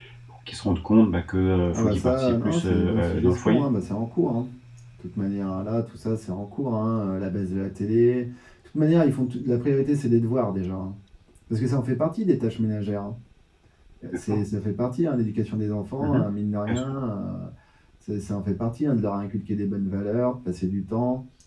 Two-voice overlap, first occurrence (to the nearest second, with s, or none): 2 s